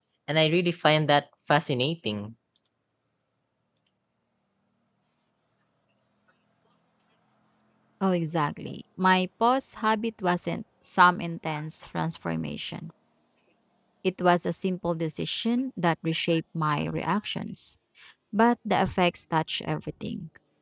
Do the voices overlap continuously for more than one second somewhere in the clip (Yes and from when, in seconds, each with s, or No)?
No